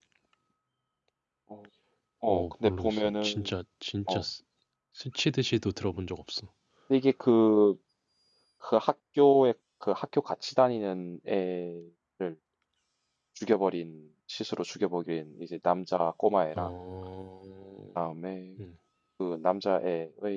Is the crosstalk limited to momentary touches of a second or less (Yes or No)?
No